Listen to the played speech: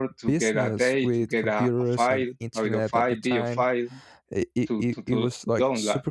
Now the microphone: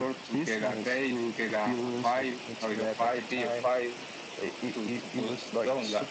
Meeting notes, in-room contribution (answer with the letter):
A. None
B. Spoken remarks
A